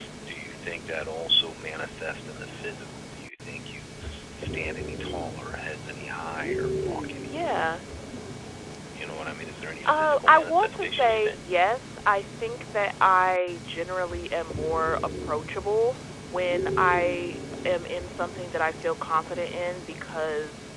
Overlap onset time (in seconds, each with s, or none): 9.8 s